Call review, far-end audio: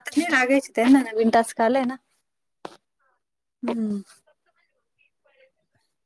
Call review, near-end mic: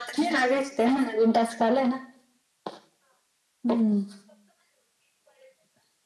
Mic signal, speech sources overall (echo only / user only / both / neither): echo only